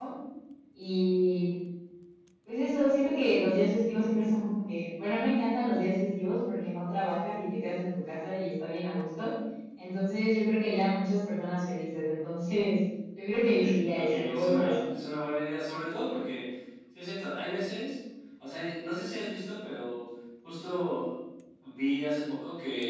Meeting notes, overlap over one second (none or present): present